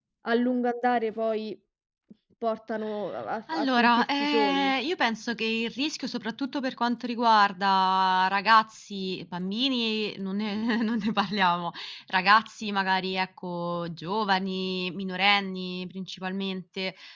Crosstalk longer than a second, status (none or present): present